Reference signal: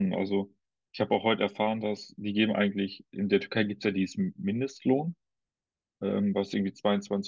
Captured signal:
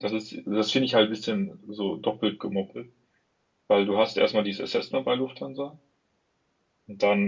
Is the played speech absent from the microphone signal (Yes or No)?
Yes